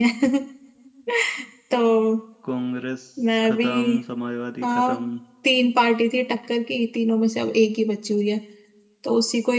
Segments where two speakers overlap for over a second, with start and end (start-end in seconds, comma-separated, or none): none